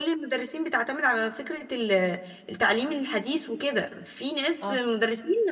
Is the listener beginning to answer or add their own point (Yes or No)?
No